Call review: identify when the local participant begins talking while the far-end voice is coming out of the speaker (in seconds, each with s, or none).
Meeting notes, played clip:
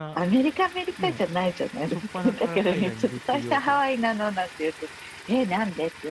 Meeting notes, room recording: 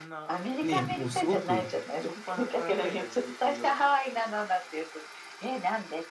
0.6 s